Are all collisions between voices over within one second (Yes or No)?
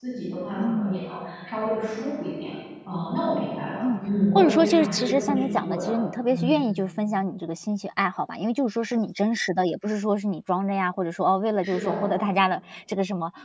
No